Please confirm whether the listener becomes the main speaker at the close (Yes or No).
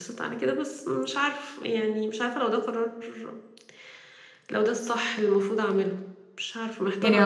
Yes